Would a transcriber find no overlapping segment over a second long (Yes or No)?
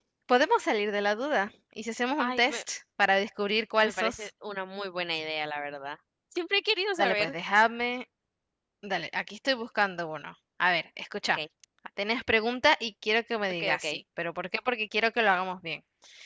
Yes